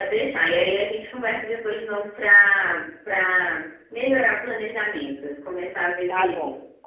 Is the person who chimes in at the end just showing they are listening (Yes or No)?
No